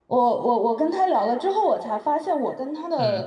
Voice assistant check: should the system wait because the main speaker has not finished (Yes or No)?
Yes